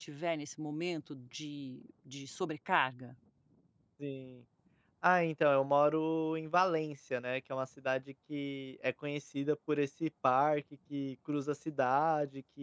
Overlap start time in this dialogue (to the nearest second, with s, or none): none